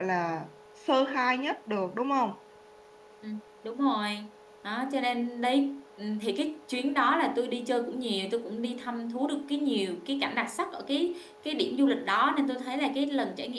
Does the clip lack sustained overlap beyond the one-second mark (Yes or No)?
Yes